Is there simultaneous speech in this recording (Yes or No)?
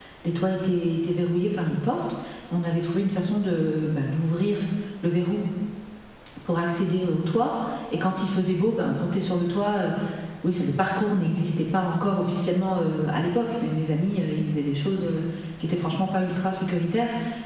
No